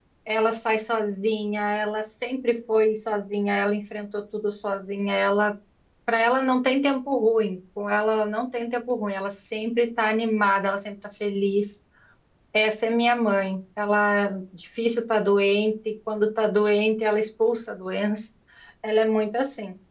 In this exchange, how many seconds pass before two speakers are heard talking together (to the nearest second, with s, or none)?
none